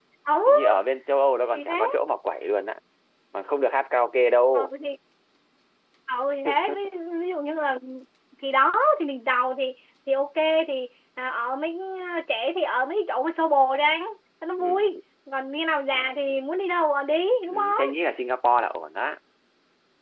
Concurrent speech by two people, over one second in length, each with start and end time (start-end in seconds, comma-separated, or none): none